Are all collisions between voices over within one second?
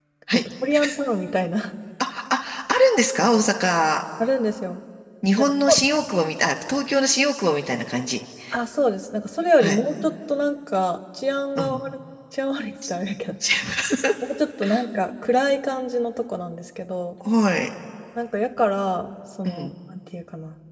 Yes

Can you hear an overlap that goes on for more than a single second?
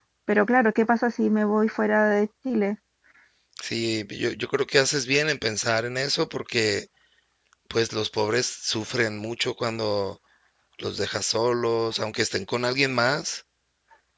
No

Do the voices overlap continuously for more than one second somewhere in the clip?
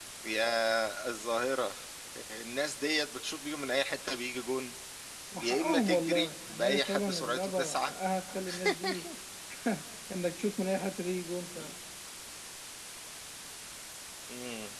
Yes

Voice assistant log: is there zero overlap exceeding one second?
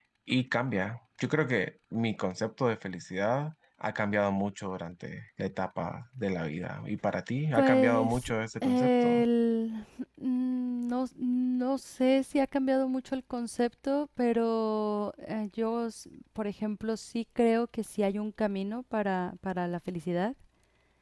No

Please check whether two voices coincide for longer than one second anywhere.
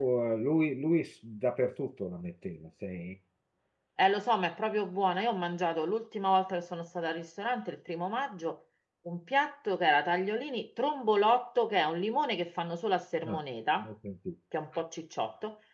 No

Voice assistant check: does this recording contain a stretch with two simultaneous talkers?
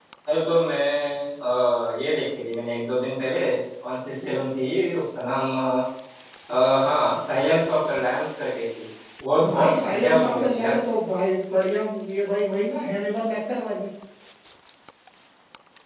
Yes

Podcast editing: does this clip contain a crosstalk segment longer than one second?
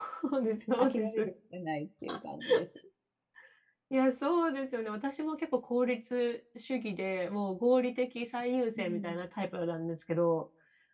No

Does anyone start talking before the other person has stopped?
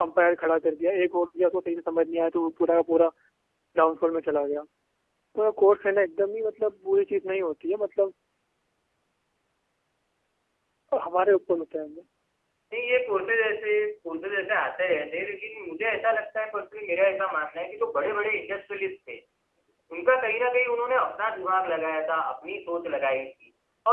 No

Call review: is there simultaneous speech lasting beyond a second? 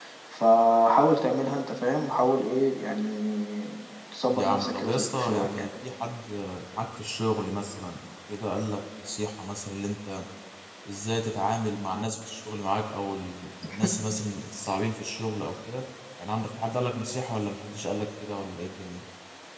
Yes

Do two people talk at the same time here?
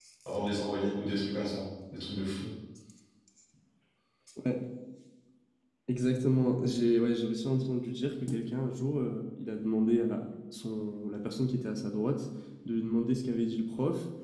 No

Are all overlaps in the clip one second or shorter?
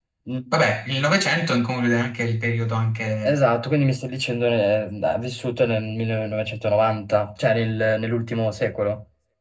Yes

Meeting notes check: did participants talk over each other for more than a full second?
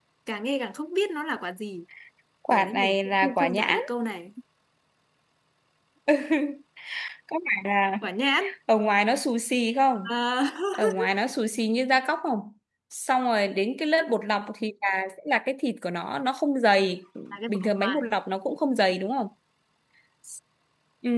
Yes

